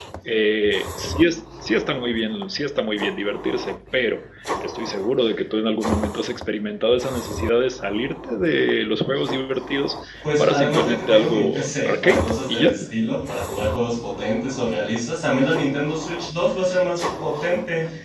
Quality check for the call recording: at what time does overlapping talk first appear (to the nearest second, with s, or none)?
10 s